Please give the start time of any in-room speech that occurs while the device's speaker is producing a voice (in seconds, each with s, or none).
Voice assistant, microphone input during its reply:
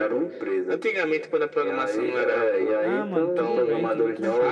2.8 s